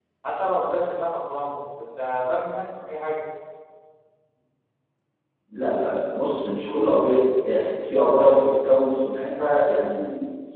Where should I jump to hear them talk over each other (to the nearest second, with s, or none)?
none